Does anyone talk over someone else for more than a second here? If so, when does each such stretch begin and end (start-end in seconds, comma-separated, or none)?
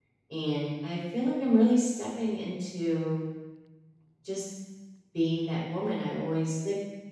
none